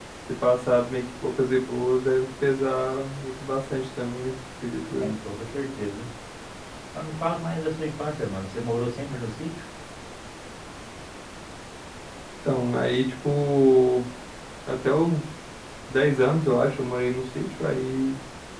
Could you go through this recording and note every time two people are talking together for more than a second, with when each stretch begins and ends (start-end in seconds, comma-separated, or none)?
none